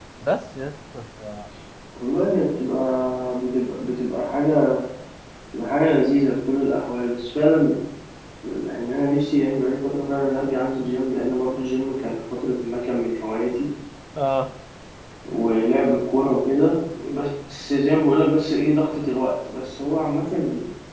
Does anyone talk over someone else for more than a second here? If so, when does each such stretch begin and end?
none

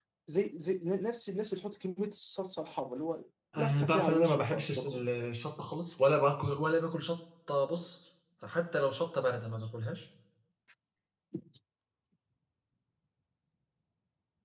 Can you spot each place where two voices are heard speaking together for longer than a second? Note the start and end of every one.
3.6-5.0

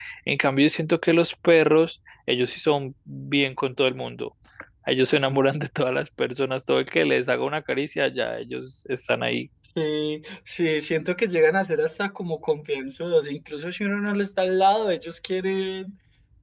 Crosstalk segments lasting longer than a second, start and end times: none

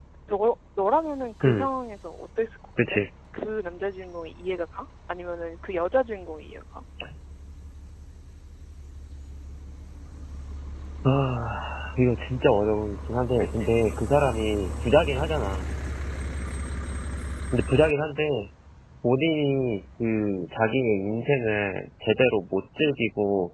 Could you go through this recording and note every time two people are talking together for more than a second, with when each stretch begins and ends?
none

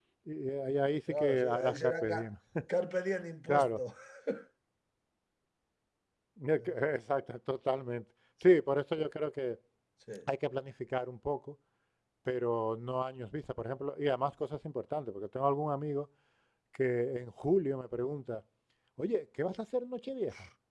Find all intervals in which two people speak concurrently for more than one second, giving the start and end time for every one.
1.1-2.3

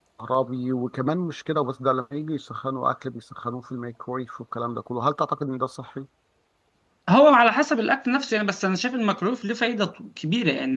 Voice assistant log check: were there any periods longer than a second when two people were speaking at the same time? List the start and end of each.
none

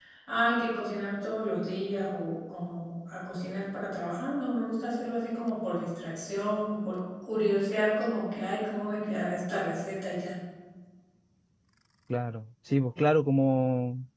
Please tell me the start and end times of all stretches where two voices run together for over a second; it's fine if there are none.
none

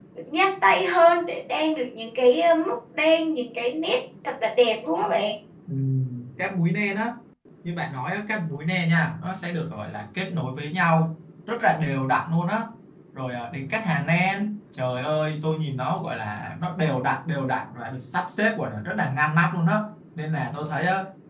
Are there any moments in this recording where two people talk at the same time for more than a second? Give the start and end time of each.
none

